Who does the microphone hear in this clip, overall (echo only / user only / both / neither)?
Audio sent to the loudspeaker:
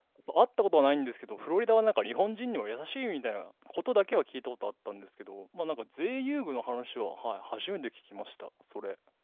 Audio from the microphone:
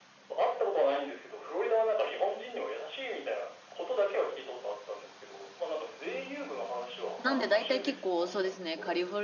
both